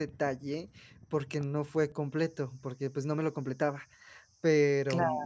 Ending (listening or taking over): listening